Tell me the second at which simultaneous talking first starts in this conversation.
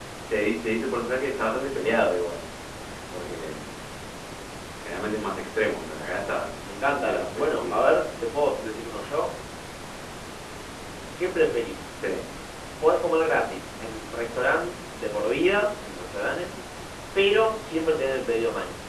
6.7 s

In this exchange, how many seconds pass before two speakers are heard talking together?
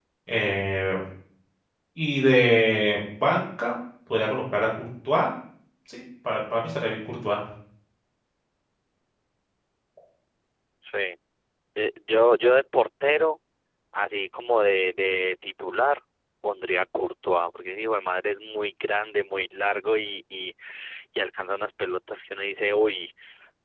none

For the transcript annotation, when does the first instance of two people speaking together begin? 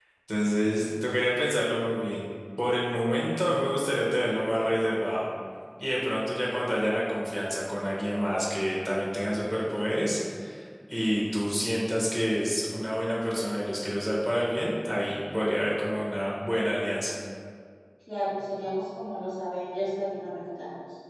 none

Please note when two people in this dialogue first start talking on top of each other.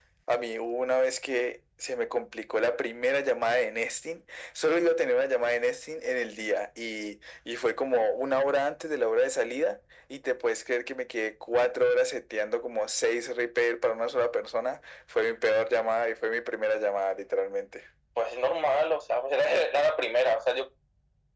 none

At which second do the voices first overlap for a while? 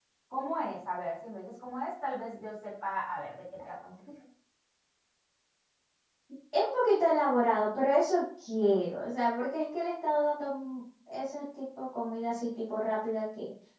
none

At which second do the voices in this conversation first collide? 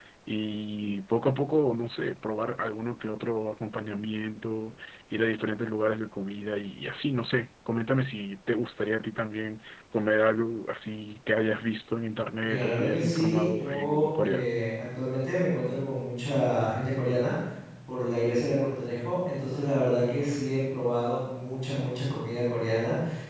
12.4 s

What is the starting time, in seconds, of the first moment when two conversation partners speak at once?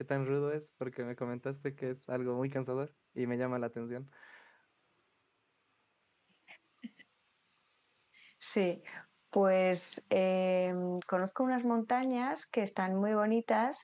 none

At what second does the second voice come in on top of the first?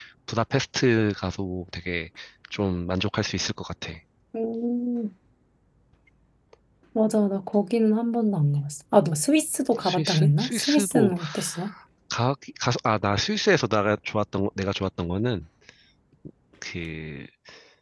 9.8 s

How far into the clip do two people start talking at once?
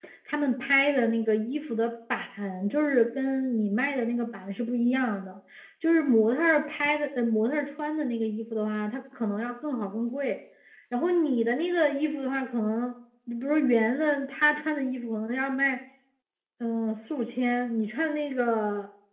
none

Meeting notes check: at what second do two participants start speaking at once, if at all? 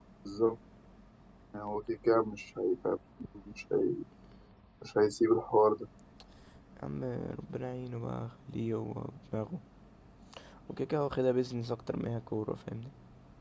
none

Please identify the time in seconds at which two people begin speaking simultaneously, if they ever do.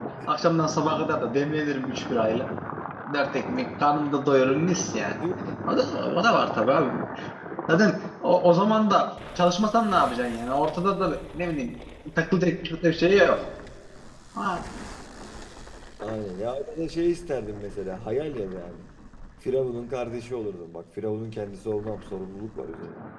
none

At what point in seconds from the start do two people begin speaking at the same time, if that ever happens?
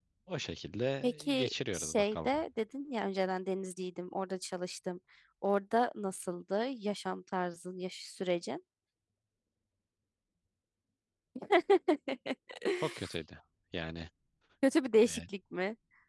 1.0 s

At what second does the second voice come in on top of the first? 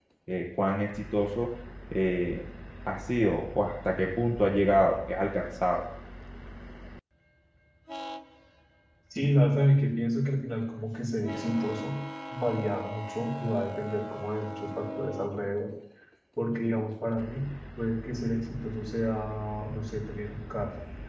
none

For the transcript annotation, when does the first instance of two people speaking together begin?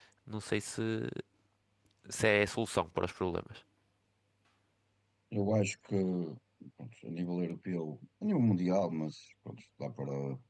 none

